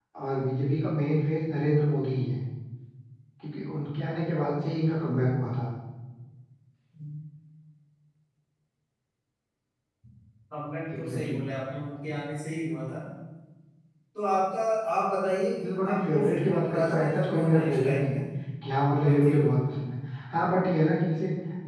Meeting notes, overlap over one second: present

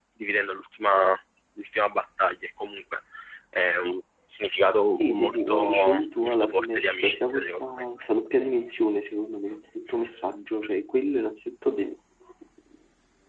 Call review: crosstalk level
present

